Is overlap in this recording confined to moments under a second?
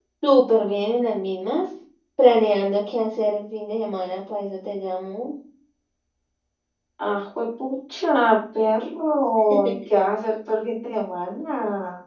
Yes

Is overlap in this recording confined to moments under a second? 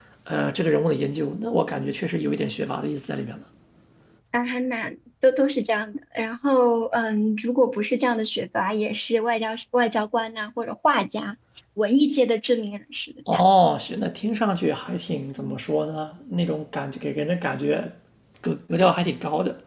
Yes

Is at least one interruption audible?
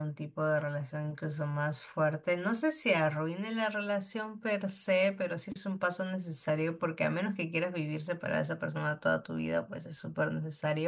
No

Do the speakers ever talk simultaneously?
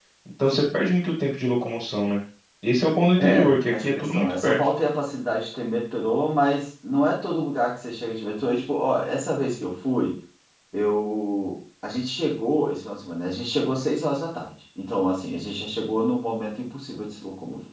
Yes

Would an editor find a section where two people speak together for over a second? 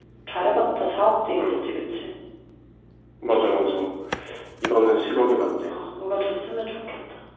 No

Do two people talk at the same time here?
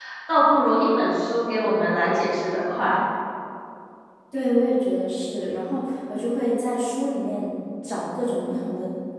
No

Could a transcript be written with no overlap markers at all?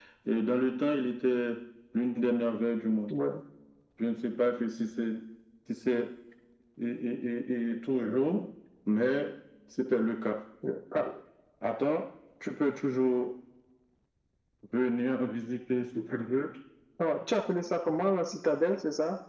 Yes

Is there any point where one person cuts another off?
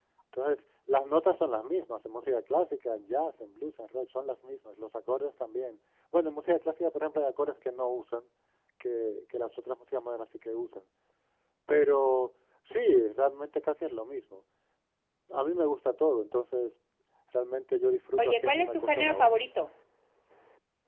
Yes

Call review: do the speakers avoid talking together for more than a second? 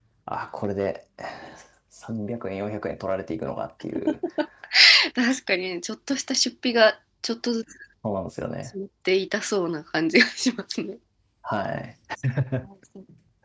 Yes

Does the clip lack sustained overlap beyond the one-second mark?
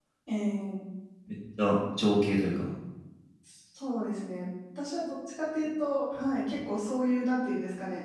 Yes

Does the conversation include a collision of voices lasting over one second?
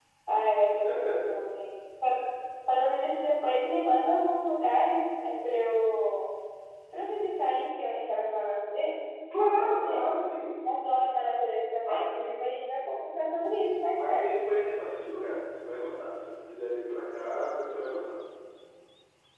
No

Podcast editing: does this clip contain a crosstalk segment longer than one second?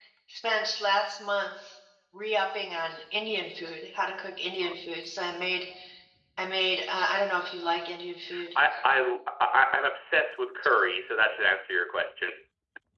No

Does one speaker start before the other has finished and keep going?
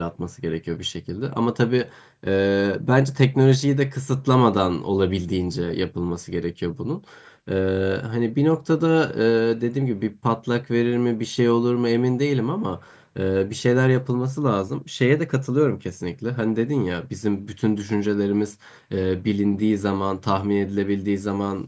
No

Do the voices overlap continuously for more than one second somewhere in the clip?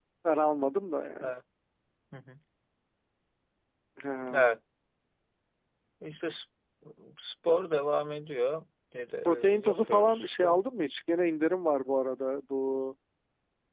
Yes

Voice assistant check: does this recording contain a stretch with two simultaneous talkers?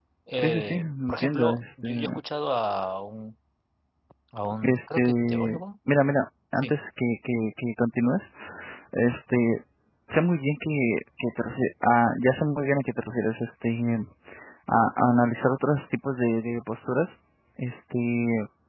Yes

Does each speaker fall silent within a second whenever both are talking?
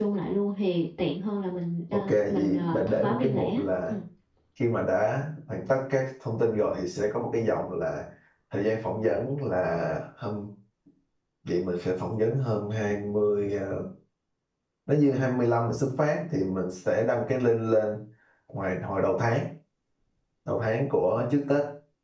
No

